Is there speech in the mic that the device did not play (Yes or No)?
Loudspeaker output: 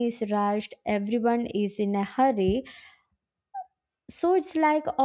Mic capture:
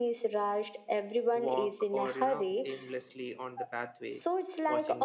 Yes